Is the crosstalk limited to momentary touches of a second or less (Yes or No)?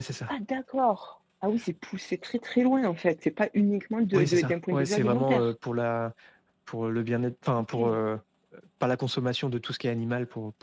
No